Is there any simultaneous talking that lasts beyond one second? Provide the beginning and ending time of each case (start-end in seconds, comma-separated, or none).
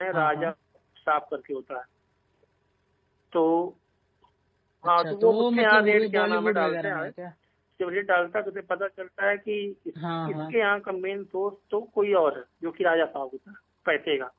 5.0-7.1